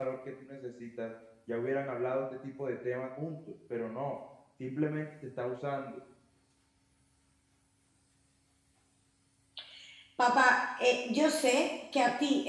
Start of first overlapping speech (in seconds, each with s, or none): none